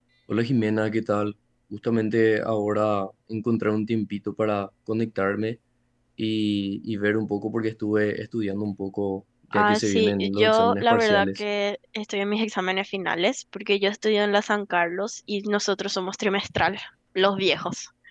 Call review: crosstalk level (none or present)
present